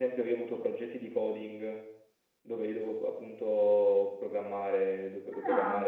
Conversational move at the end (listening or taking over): listening